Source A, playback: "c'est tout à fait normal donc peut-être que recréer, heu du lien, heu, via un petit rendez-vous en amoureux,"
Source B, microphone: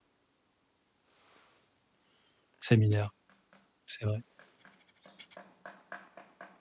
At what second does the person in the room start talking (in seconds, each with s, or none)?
2.6 s